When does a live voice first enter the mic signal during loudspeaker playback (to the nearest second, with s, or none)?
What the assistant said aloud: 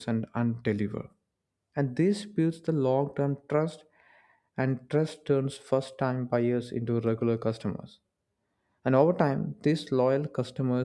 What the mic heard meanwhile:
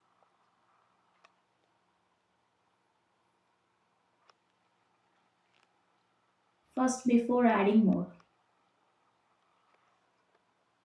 7 s